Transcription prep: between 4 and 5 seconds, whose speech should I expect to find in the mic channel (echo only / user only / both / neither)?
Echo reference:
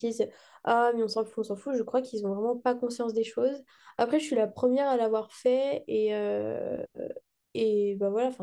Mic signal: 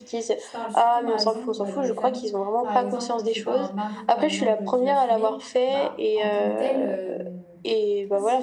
both